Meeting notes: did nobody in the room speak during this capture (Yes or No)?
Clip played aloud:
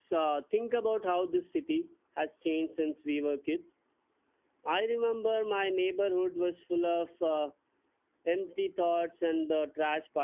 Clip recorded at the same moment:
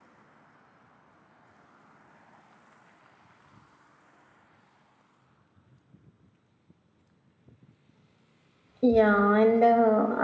No